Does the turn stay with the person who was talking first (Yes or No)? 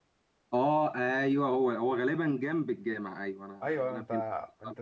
No